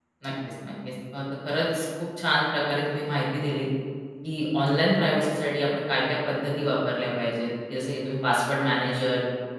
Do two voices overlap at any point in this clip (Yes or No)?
No